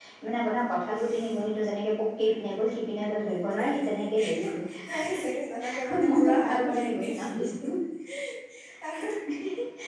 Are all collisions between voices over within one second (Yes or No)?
No